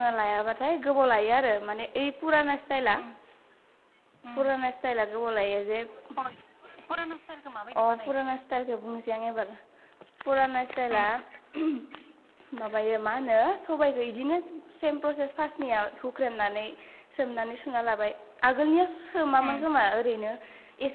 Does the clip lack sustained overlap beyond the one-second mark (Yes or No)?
Yes